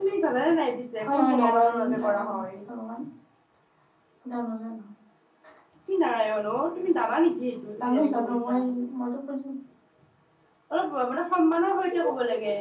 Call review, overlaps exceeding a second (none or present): present